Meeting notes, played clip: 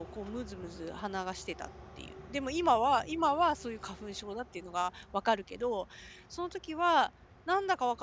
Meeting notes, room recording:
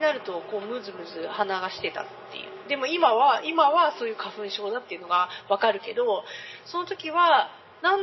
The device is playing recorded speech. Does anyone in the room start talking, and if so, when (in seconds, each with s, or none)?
none